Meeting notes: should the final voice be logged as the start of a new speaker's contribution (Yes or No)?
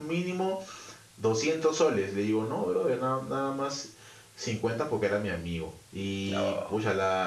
No